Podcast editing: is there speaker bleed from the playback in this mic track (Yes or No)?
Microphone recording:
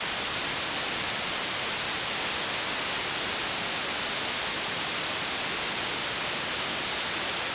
No